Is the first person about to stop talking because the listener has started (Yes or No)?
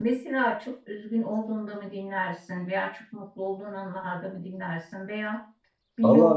No